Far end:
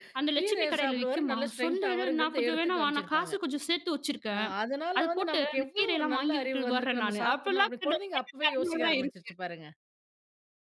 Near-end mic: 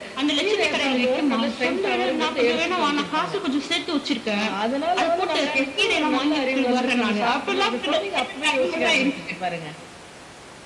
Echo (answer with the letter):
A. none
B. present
B